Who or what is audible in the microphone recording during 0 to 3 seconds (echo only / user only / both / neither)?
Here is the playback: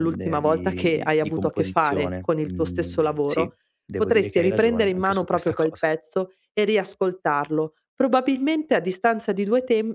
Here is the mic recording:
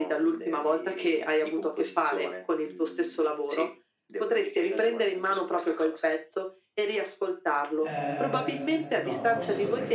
echo only